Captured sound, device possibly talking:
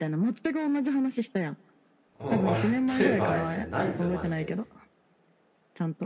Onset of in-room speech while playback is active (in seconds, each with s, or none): 2.2 s